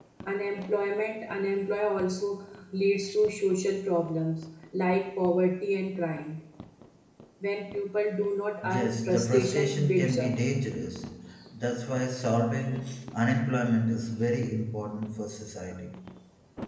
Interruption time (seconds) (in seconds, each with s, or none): 8.6 s